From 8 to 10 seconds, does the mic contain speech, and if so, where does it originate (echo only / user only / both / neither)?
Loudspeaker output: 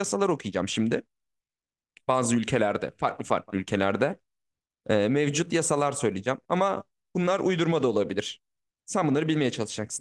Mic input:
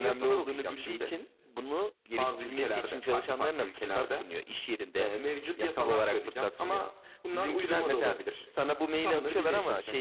both